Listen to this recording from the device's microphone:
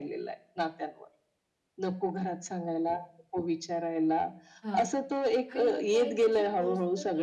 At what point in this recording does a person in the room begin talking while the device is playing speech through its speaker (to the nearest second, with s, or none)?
5 s